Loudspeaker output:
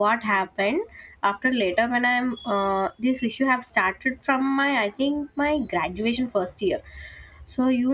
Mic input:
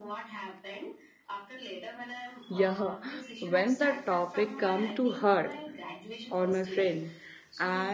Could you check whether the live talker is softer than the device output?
No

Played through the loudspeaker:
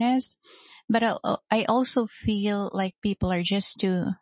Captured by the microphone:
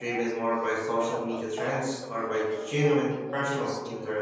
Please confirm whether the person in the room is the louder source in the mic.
Yes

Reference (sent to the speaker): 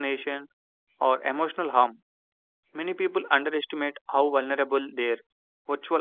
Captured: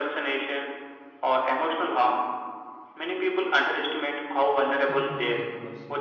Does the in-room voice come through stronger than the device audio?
No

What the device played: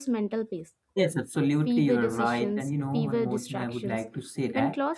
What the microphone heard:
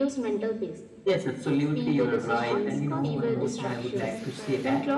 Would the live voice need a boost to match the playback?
Yes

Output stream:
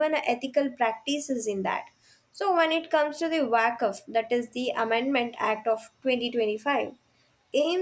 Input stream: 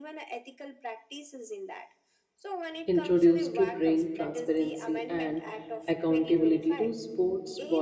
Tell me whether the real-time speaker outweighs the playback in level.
Yes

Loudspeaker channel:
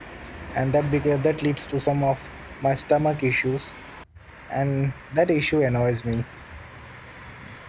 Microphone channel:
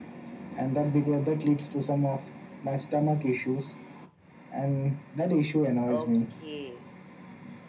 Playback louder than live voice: Yes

